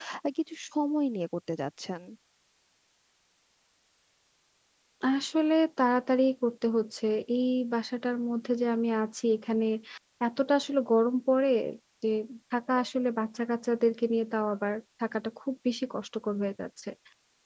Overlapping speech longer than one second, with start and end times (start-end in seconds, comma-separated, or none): none